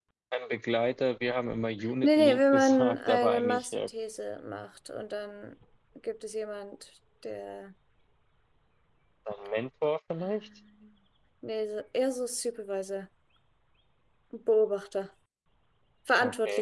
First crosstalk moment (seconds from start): 2 s

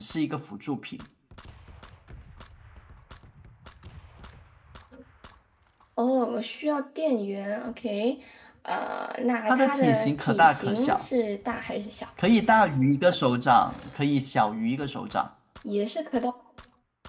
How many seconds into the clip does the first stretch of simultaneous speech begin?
9 s

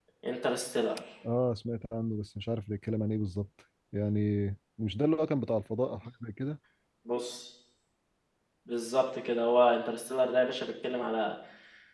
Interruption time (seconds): none

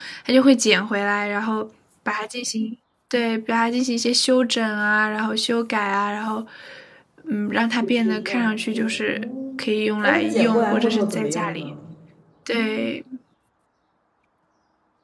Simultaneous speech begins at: 8 s

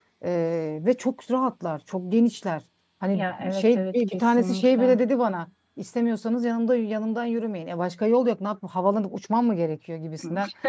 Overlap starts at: 3 s

